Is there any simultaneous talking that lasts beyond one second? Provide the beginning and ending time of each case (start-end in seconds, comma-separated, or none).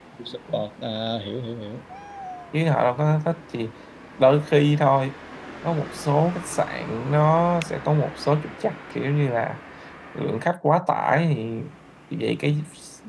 none